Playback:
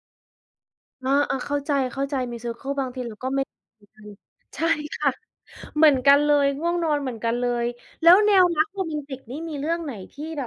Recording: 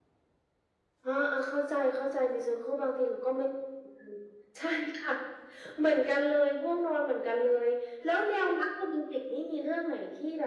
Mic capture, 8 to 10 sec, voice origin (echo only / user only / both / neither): echo only